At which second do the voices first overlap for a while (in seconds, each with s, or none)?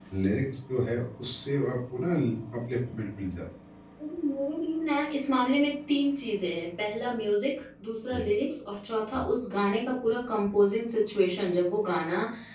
none